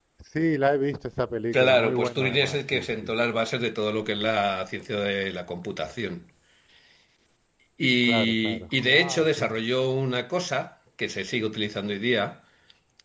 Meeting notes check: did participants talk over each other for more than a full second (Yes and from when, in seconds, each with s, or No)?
Yes, from 1.5 s